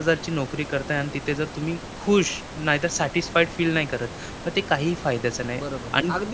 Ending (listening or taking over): taking over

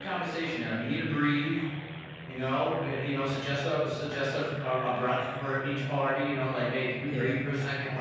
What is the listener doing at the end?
listening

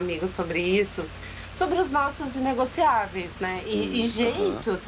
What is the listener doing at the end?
listening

